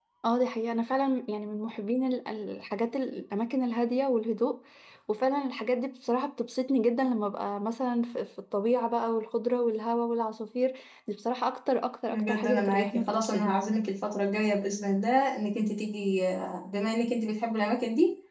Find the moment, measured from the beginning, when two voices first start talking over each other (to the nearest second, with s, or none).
12 s